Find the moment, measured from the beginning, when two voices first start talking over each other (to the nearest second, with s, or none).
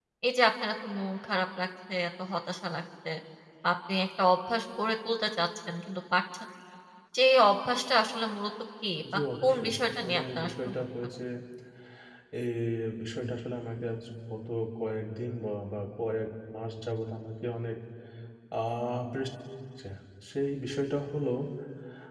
9 s